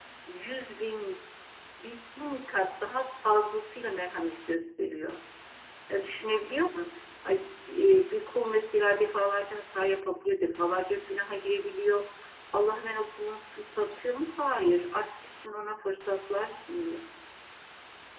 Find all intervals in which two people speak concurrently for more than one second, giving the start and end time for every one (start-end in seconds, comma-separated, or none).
none